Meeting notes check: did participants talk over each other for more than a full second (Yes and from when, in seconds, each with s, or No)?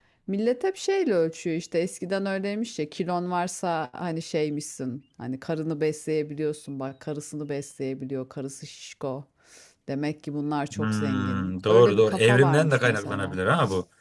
Yes, from 10.8 s